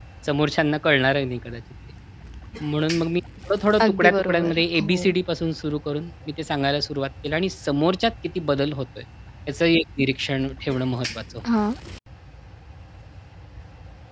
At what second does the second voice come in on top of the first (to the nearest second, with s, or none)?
4 s